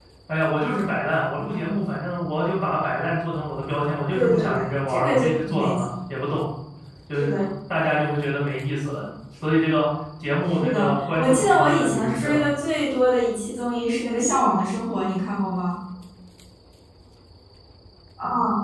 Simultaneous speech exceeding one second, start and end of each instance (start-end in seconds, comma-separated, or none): 4.1-5.8, 10.6-12.4